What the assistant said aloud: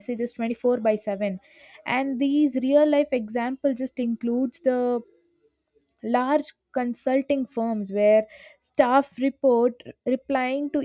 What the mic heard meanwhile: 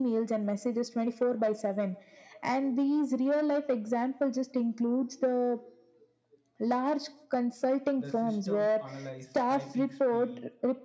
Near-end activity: present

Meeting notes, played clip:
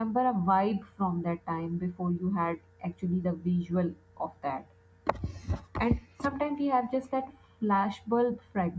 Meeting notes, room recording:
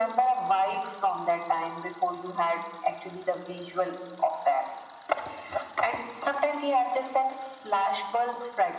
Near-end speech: none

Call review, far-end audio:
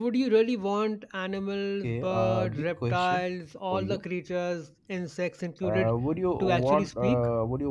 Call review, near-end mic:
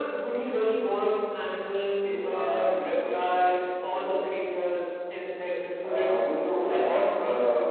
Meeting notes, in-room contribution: none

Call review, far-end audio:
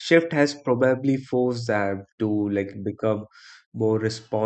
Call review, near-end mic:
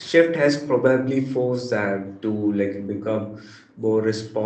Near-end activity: none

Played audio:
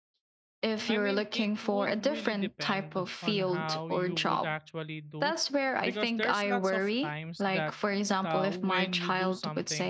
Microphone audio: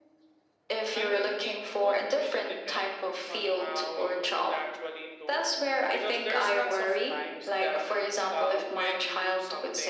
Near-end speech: none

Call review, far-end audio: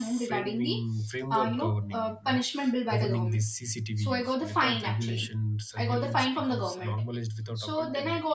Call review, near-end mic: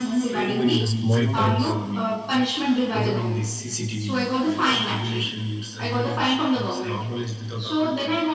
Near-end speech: present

